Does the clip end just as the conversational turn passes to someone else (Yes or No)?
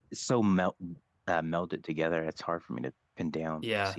Yes